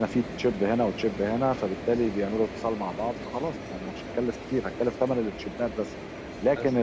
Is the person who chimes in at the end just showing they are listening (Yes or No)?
Yes